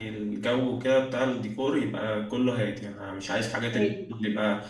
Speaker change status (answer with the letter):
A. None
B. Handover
A